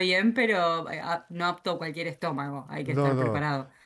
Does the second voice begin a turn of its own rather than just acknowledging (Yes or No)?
Yes